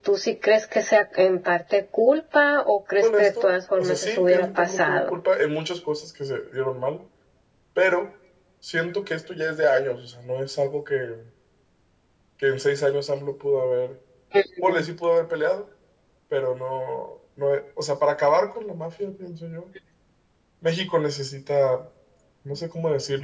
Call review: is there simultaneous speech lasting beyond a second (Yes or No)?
Yes